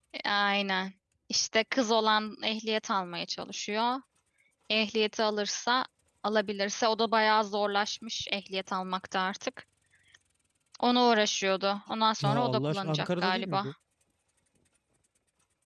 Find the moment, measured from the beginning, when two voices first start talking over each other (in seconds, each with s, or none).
12.2 s